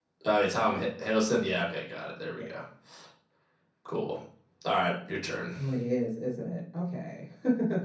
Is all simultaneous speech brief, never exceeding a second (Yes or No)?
Yes